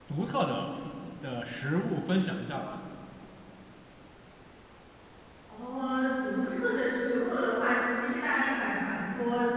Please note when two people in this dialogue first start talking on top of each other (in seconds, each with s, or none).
none